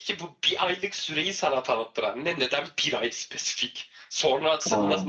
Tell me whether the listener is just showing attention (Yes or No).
Yes